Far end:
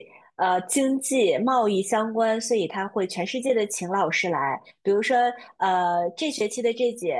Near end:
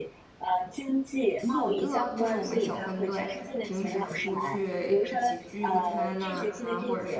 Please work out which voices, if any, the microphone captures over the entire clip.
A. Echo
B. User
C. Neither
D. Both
D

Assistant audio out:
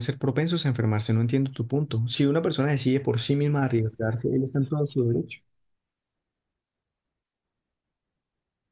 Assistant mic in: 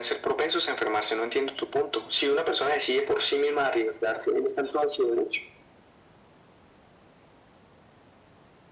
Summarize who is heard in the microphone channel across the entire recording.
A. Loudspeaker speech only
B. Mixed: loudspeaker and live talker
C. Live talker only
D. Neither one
A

